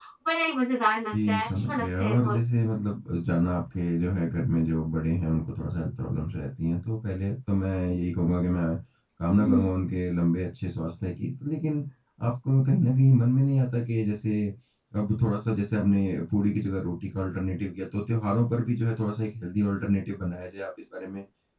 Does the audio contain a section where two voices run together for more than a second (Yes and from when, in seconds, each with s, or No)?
Yes, from 1.1 s